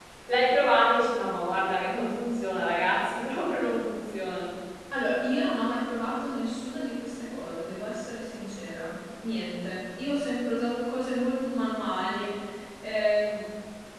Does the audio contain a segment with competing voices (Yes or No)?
No